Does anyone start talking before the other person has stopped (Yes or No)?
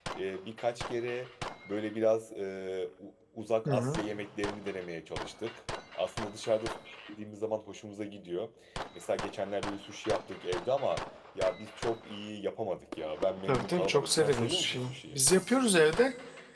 Yes